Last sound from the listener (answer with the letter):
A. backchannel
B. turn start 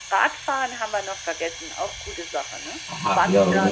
B